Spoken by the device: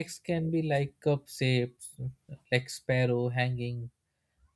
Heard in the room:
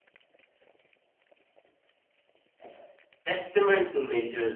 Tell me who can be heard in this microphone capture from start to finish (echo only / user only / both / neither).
user only